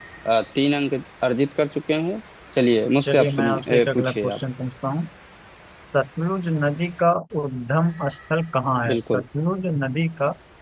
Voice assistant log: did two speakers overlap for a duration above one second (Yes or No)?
Yes